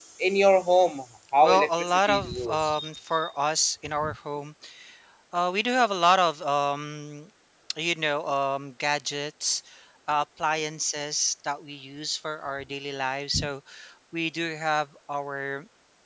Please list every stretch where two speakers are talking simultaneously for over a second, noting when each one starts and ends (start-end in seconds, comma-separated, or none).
1.4-2.8